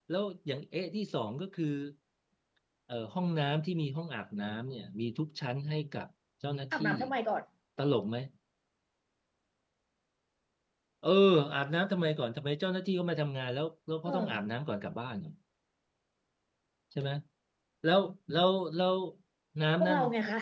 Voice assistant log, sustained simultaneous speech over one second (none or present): none